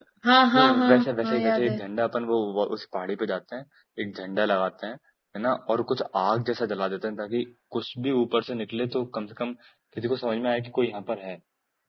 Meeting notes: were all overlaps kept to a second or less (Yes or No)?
No